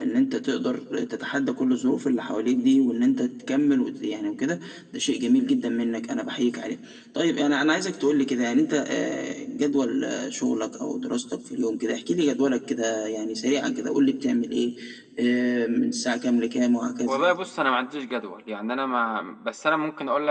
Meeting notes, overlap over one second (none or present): none